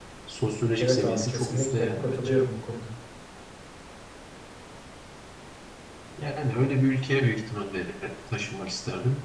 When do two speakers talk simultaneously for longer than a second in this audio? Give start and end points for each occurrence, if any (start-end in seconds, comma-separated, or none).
0.8-2.4